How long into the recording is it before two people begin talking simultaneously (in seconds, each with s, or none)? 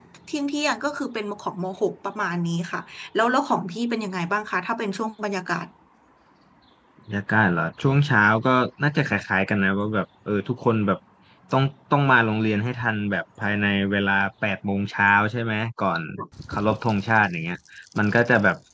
none